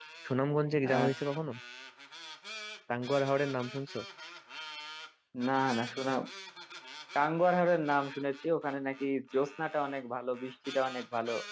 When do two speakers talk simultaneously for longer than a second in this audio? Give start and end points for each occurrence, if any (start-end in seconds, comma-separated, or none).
none